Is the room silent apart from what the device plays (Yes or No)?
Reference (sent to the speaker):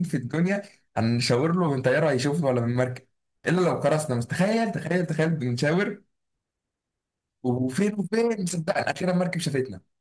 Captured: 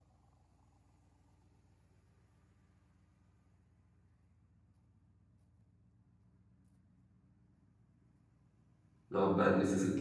No